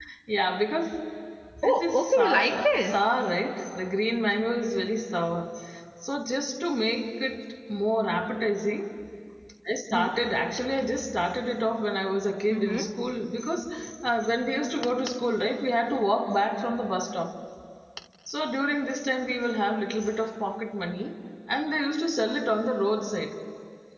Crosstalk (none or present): present